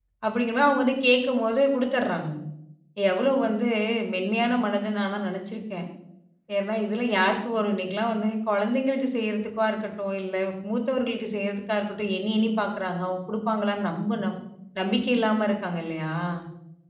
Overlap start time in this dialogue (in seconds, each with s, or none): none